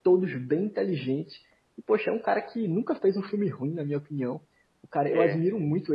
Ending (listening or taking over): listening